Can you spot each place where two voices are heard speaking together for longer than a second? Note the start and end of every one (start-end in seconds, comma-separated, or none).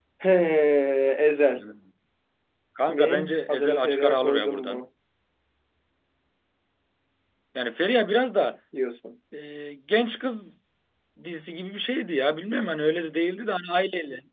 2.9-4.8